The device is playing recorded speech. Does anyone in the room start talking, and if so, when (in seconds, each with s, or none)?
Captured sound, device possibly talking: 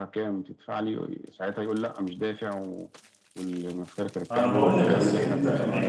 4.3 s